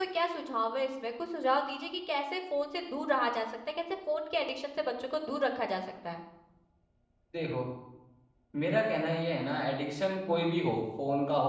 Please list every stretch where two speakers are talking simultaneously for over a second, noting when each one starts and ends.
none

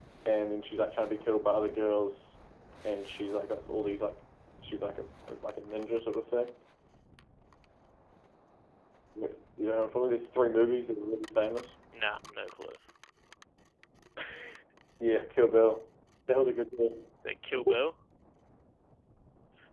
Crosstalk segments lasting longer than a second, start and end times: none

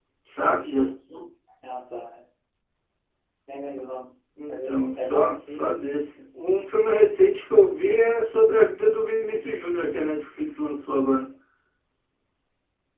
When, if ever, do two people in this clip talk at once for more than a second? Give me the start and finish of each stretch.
4.5-5.9

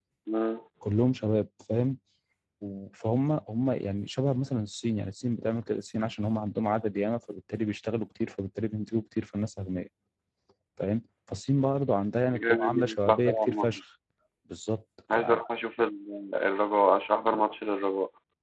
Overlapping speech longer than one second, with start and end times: 12.3-13.8

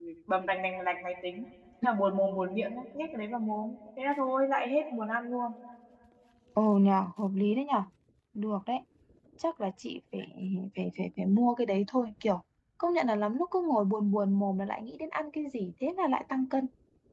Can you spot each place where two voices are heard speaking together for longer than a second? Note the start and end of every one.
none

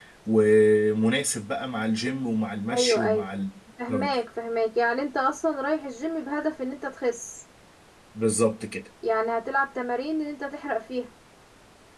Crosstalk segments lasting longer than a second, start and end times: none

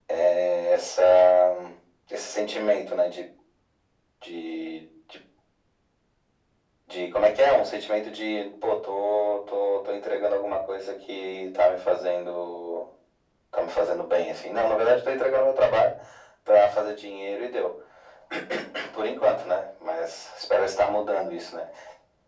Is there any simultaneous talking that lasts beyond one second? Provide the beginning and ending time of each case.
none

